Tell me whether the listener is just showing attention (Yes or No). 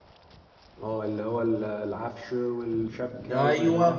No